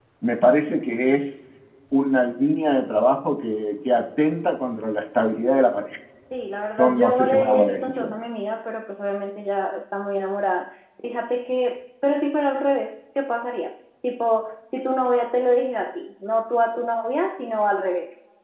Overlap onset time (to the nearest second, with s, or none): 7 s